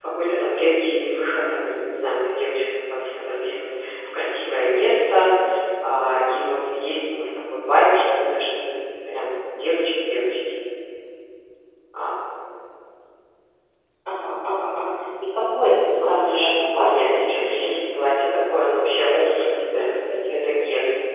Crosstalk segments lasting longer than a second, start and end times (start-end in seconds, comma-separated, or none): 16.0-17.7